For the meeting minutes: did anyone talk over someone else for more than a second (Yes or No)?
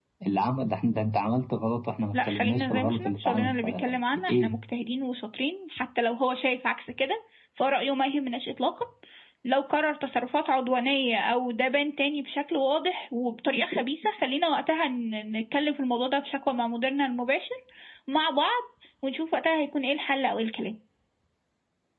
Yes